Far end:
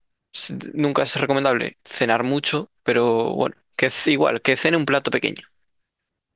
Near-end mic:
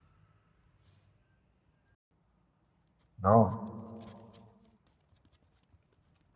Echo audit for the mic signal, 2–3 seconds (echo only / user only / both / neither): neither